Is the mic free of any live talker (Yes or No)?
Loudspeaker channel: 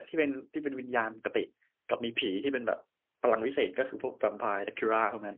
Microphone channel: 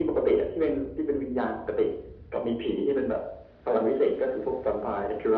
Yes